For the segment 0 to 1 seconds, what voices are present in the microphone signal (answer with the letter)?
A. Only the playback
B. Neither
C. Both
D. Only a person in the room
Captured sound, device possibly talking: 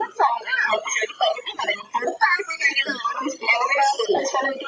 A